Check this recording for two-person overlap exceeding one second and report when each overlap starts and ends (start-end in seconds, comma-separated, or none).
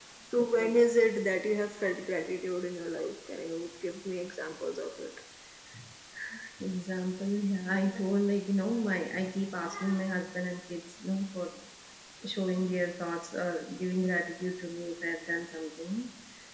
none